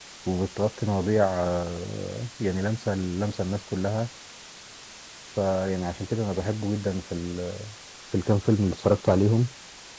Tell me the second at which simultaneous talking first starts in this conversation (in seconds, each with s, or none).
none